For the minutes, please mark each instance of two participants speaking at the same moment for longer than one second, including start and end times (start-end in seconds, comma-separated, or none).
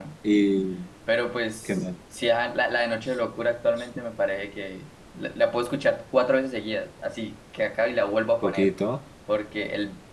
none